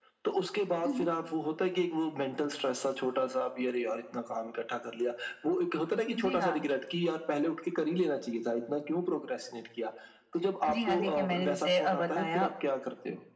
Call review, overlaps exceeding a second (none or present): present